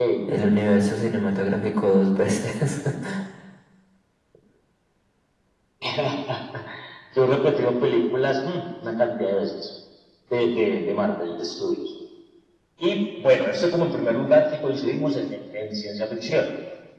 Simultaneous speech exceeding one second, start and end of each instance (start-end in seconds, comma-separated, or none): none